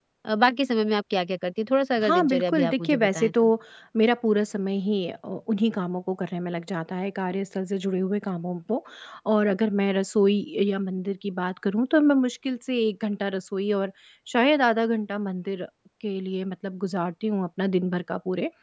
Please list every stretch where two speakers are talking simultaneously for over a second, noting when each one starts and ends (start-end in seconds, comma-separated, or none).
2.0-3.3